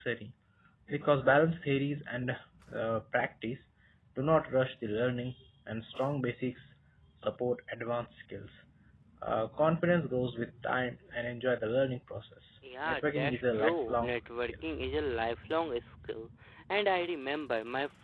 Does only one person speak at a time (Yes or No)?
No